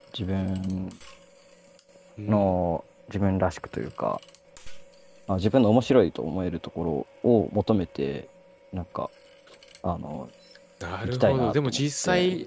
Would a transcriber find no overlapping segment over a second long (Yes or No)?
No